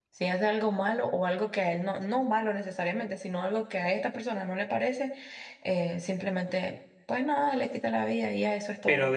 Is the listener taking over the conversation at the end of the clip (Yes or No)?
Yes